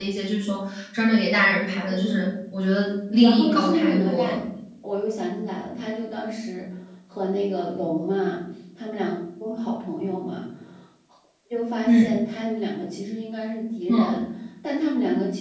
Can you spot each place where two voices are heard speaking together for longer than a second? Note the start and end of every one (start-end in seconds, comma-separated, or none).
3.1-4.4